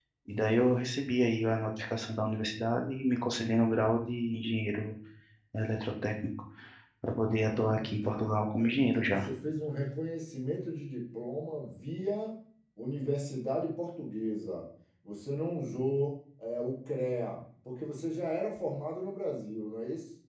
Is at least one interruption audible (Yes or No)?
Yes